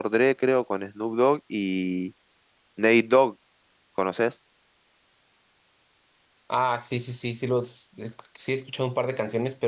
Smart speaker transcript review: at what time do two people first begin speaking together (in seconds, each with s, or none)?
none